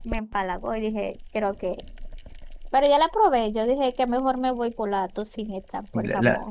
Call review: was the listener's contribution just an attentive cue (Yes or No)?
No